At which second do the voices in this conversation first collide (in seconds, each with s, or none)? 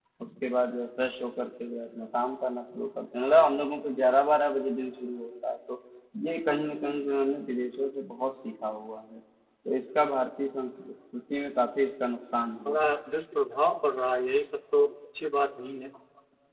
none